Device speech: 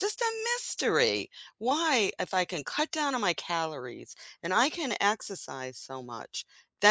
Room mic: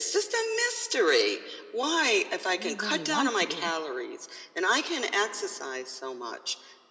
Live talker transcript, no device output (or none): didn't really want to.